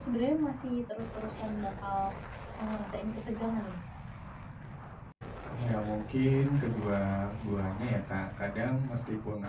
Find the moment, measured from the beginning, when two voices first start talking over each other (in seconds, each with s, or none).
none